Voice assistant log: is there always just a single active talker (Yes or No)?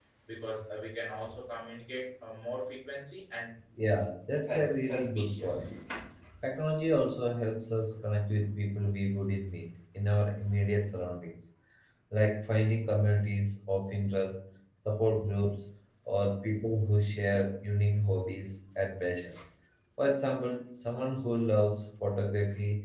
No